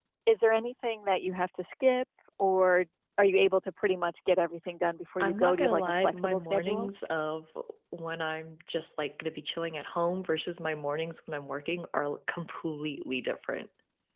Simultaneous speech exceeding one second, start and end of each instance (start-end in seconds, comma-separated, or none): 5.2-6.9